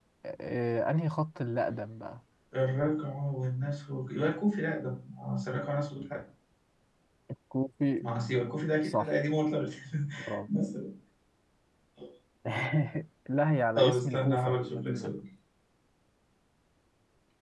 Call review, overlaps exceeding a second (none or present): present